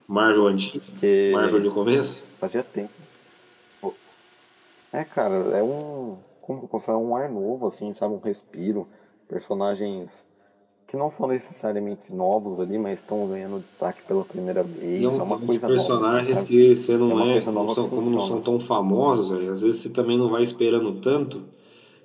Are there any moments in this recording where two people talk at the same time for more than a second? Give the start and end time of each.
15.0-16.5, 17.1-18.4

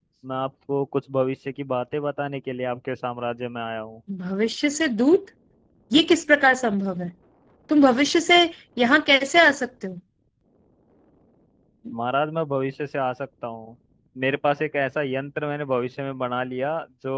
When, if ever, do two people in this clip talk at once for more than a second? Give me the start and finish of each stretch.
none

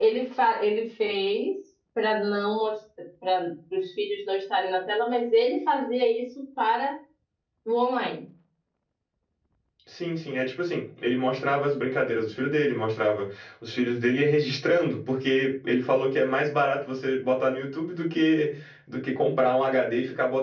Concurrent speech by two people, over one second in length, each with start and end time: none

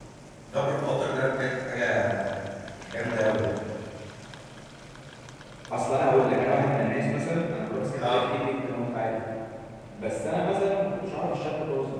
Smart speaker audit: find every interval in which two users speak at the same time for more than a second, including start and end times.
none

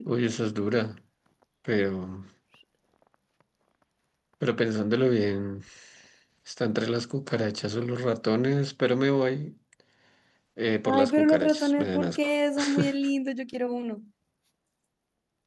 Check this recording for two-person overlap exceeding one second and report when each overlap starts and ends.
10.8-12.2

